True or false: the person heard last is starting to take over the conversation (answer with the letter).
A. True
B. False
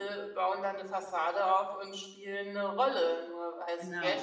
B